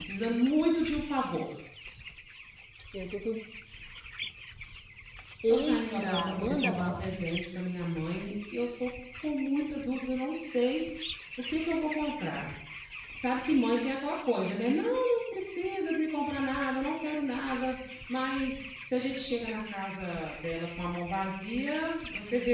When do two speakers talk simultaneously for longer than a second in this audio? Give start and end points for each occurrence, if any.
5.5-7.0

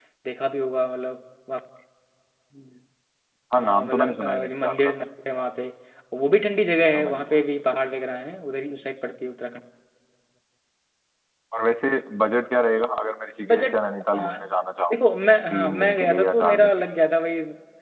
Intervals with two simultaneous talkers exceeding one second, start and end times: 3.6-4.9, 15.5-16.7

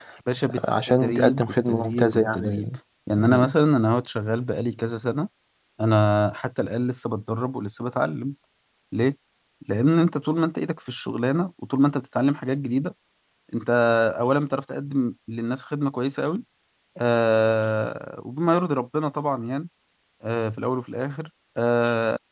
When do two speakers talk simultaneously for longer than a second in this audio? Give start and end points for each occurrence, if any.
0.5-2.8

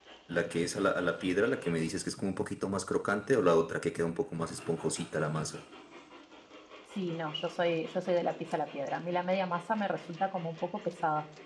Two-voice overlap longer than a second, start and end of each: none

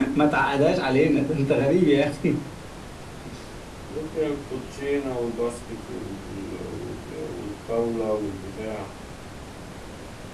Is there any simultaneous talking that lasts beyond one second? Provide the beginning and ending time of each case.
none

